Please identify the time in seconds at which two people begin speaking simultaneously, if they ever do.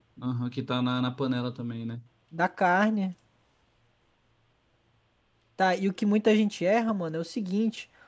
none

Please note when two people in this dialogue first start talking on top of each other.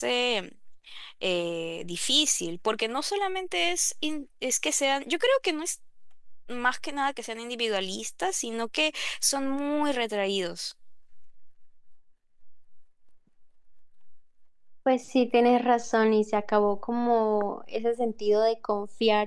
none

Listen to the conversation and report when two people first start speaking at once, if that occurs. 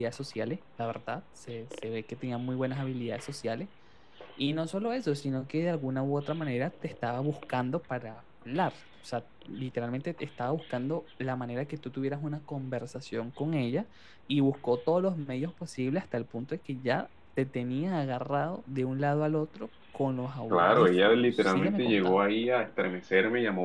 20.5 s

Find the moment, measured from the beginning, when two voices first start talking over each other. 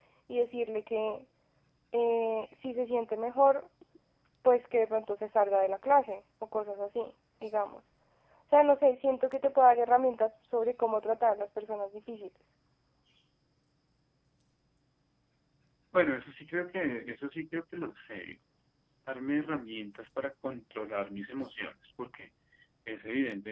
none

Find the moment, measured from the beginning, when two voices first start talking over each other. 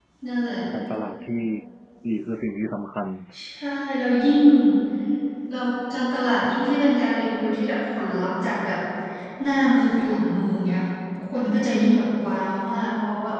none

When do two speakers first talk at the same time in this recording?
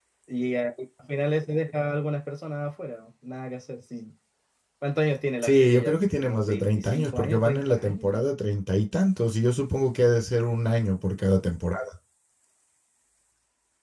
5.4 s

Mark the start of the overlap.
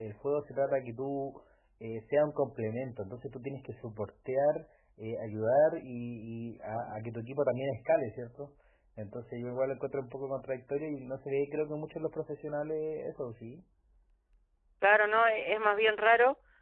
none

